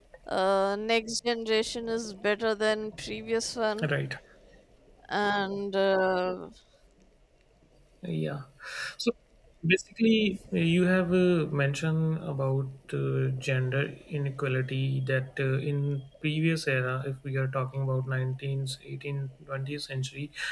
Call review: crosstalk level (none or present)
none